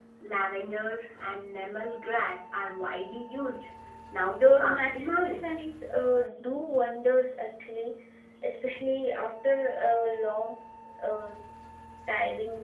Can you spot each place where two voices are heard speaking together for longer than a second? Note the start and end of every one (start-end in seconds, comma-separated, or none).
4.3-5.5